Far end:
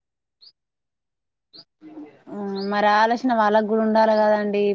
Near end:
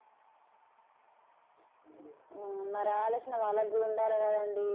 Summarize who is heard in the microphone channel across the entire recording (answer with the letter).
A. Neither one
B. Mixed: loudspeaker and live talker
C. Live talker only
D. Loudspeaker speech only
D